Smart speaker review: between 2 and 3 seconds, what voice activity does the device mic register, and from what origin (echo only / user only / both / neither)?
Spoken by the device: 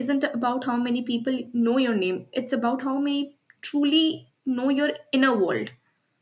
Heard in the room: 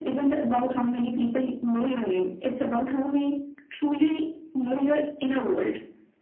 echo only